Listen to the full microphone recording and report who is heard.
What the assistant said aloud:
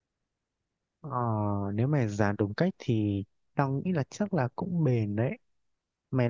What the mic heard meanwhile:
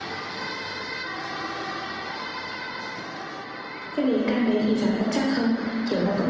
user only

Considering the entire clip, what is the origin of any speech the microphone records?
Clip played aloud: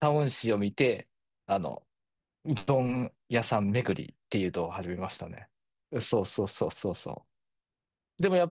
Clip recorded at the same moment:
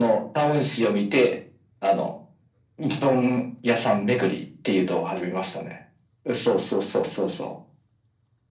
echo only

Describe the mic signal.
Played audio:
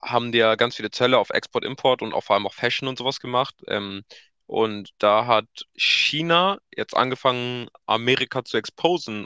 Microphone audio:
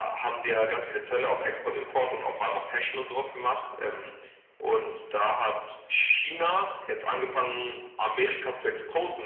echo only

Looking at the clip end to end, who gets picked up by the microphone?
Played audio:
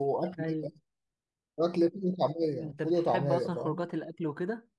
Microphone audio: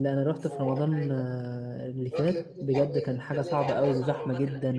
both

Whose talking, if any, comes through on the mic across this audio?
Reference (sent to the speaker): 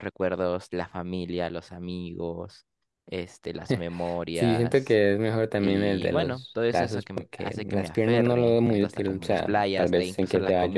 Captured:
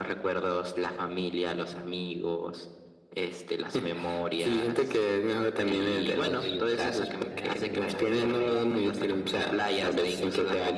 both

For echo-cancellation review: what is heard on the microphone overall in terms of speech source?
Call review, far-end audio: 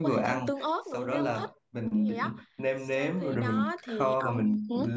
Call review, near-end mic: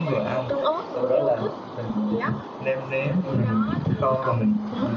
echo only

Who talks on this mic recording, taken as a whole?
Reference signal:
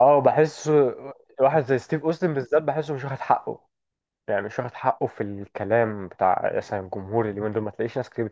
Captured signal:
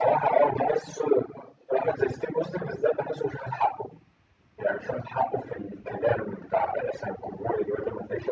echo only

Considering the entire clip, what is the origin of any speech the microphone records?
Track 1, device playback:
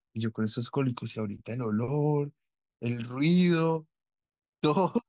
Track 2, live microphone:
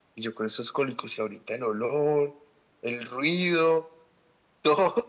echo only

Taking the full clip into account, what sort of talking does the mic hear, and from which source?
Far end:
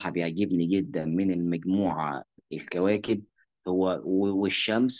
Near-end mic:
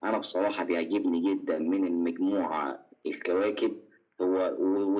echo only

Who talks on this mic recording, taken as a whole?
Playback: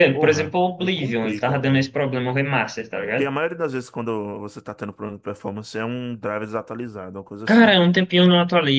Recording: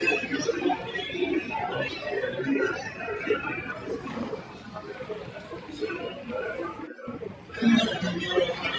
echo only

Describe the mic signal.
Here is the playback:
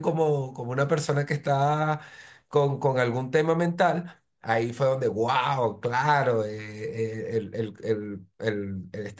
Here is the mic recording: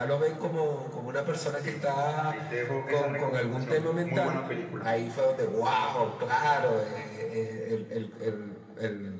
both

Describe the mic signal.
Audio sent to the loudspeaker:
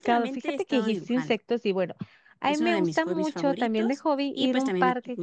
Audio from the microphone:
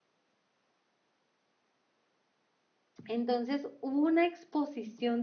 user only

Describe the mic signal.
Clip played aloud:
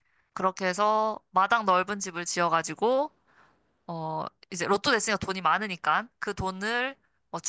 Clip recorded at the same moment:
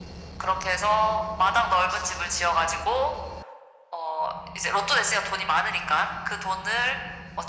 echo only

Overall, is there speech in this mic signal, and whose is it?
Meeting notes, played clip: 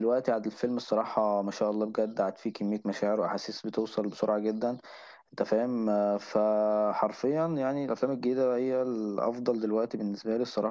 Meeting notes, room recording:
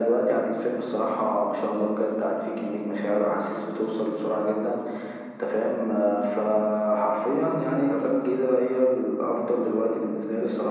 echo only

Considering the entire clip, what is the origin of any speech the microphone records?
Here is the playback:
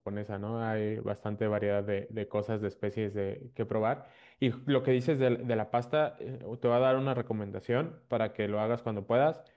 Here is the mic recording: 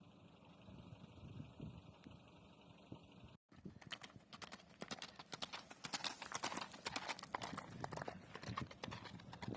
neither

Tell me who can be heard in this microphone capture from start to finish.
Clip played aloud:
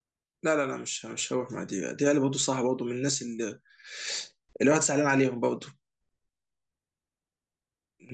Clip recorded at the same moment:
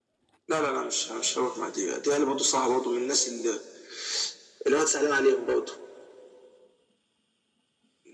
echo only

